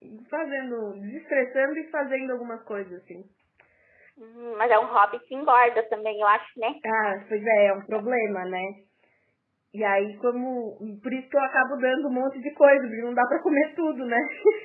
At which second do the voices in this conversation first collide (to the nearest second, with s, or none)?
none